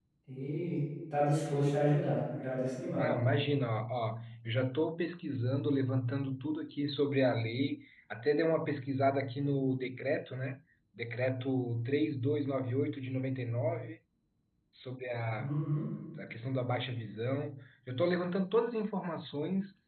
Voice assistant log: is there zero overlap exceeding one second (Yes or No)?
Yes